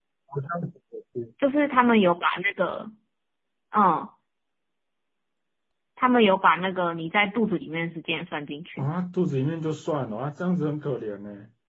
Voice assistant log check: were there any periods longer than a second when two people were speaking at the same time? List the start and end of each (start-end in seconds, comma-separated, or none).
none